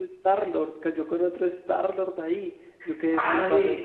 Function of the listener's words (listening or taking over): taking over